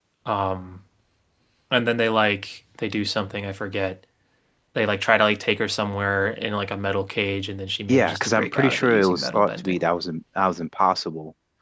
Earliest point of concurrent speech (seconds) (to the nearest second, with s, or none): 8 s